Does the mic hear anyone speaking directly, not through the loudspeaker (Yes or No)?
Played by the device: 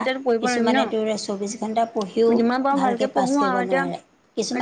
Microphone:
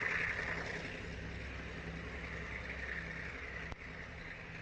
No